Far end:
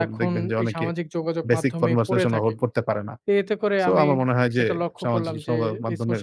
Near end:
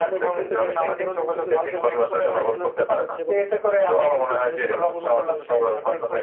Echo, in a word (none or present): present